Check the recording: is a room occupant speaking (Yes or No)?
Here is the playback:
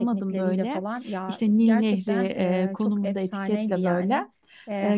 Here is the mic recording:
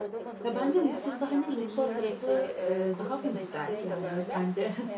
Yes